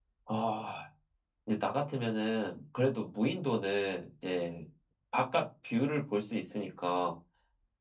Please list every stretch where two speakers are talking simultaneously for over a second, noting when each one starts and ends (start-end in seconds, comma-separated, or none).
none